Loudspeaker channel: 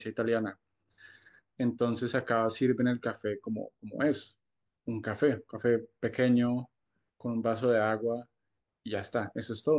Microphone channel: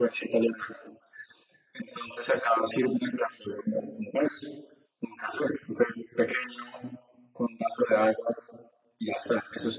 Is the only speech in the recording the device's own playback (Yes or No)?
Yes